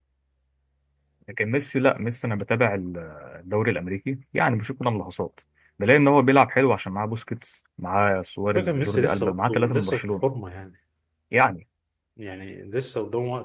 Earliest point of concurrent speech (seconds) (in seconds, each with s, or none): 8.5 s